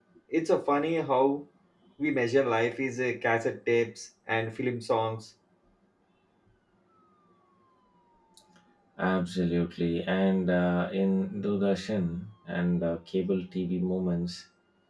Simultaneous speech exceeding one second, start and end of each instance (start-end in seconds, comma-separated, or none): none